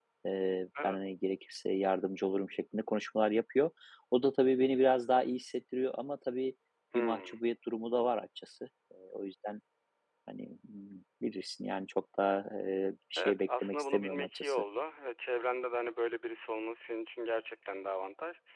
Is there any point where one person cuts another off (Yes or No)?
Yes